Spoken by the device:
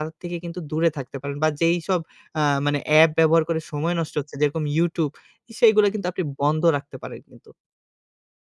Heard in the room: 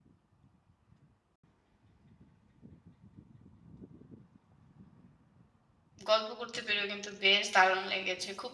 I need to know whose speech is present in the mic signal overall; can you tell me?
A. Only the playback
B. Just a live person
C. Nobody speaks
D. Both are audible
B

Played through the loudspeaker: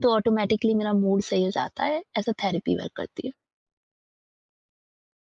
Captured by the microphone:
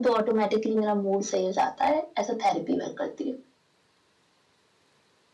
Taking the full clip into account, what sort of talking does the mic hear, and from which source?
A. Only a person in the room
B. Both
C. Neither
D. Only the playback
D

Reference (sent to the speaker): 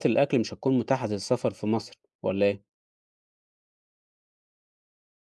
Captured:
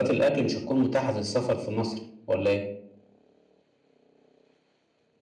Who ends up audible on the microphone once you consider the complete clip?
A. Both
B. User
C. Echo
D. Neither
C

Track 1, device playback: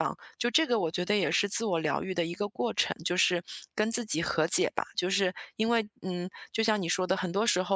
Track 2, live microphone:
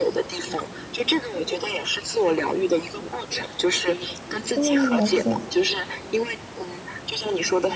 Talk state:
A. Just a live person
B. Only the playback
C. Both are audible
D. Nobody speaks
C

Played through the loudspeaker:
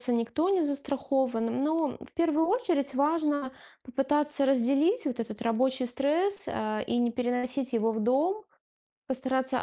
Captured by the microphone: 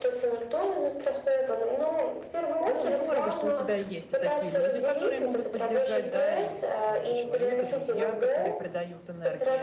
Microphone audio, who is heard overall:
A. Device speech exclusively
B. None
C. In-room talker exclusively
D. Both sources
D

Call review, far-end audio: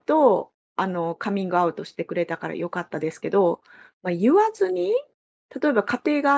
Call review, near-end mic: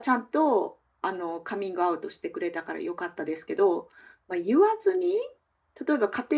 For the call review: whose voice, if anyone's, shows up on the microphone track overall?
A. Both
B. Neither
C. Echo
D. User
C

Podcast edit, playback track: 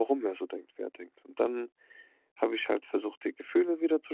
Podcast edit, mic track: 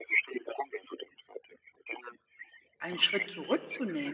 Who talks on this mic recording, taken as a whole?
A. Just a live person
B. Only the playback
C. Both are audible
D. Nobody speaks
C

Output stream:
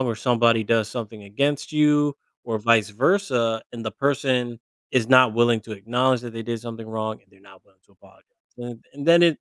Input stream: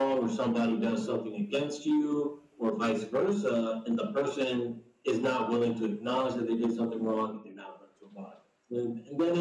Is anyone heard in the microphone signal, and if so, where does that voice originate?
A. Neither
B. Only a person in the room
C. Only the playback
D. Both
C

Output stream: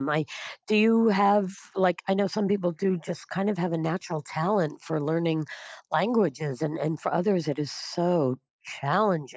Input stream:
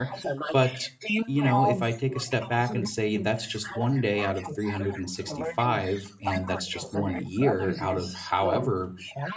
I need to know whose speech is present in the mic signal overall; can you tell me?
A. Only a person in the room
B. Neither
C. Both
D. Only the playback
C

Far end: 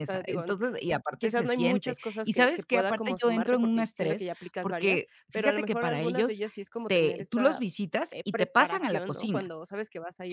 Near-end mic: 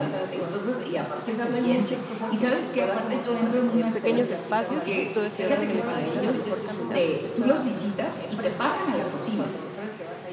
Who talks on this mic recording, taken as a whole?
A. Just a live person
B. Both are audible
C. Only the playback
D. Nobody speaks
B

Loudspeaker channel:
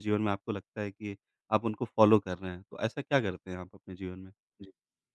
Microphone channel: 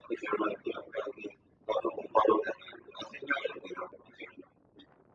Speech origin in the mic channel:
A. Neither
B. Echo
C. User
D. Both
B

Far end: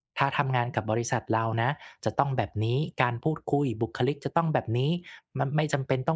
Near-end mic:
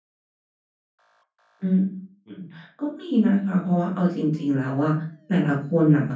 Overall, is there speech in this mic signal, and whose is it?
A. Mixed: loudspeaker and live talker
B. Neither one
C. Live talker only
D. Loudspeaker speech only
C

